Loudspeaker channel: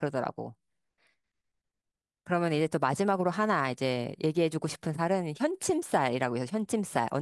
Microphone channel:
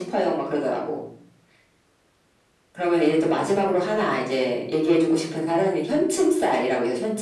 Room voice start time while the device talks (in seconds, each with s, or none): none